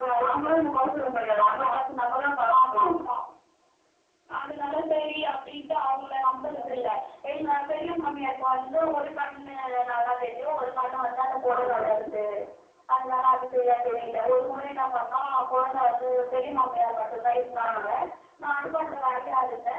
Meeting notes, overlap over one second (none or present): none